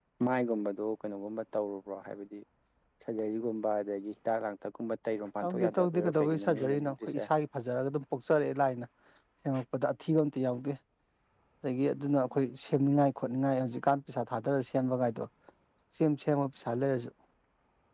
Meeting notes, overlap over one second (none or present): present